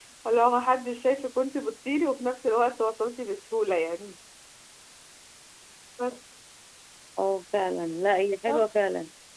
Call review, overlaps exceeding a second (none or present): none